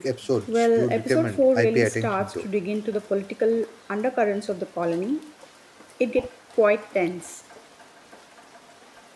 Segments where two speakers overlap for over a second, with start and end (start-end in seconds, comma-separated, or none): 0.6-2.4